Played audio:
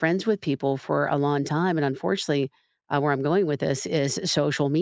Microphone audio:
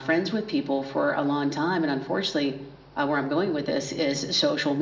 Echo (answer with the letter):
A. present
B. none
A